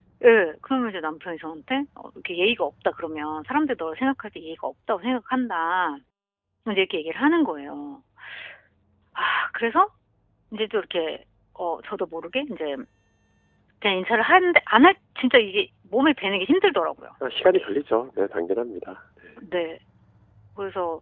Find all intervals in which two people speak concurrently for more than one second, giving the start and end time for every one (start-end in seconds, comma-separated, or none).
none